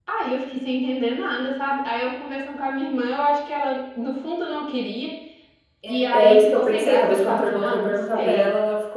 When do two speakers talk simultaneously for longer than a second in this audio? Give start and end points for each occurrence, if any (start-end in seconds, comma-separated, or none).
6.1-8.4